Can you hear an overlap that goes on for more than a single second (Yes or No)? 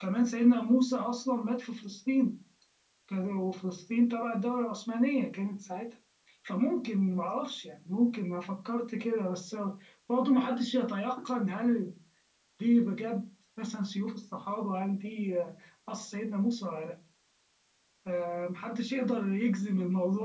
No